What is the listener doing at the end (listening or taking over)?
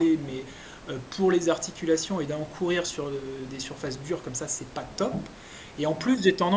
listening